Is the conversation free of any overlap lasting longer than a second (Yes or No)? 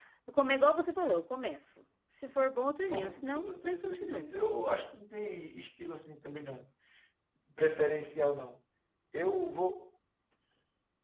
No